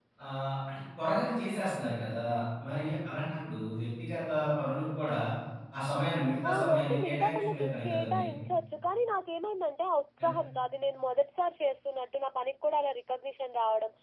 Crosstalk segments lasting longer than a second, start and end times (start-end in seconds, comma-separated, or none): 6.5-8.2